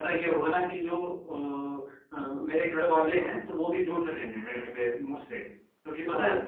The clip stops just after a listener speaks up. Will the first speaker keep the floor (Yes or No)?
Yes